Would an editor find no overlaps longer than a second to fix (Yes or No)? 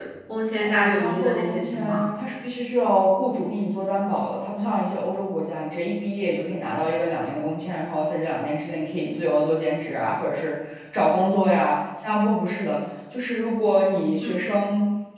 No